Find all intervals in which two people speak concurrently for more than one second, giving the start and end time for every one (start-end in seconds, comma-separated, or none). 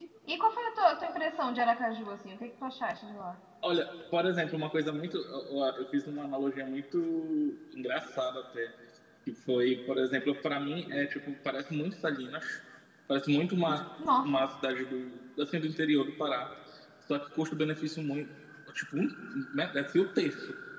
none